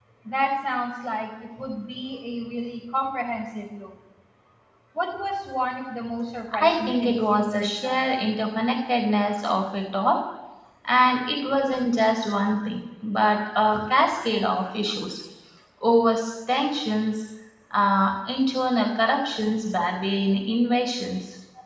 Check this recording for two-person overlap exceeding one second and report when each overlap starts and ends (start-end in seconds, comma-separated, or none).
6.6-8.1